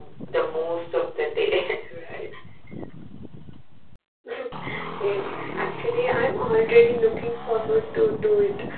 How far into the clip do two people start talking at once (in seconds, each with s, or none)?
none